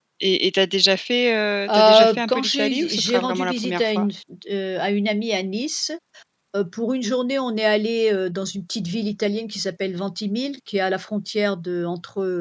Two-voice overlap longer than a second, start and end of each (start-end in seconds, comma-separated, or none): 1.7-4.1